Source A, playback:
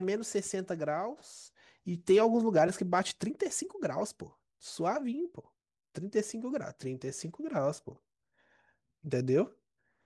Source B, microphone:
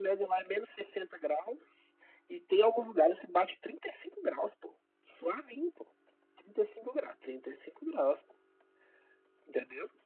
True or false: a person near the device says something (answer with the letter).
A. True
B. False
B